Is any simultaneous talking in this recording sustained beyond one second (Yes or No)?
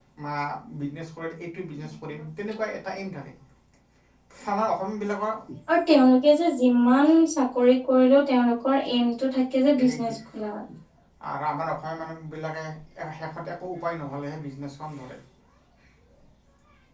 No